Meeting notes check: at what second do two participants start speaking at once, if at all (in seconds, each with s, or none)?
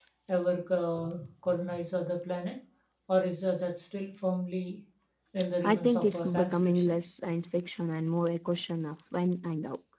5.6 s